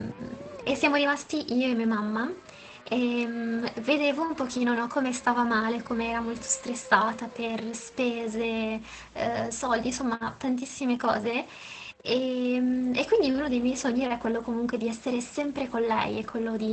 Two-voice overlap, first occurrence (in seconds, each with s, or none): none